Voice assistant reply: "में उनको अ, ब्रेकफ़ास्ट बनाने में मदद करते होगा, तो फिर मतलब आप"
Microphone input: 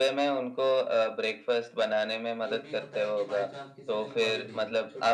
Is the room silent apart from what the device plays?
No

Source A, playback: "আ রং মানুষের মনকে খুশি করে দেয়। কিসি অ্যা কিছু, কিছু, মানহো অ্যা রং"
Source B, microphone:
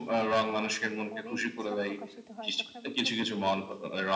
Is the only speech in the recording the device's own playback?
No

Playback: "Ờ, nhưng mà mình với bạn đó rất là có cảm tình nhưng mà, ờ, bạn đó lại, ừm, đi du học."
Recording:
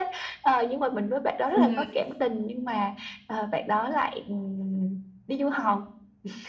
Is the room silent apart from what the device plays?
No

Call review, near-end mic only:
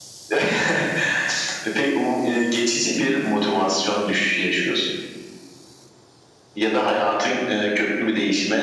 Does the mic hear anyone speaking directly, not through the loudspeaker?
No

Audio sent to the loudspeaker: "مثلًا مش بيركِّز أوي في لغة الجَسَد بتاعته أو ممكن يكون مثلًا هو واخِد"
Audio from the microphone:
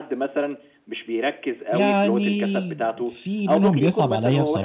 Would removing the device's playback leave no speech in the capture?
No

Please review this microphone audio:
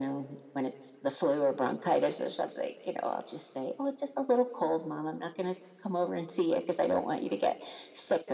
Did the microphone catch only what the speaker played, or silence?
Yes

